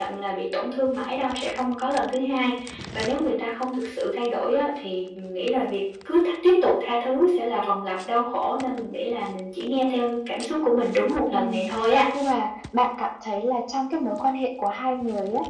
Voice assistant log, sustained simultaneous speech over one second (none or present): none